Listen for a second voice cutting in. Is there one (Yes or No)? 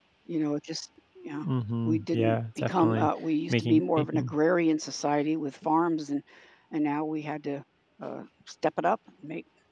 Yes